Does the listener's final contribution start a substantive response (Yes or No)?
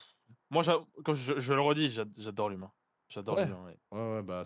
Yes